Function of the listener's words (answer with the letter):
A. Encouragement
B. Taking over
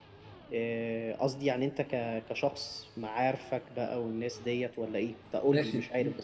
B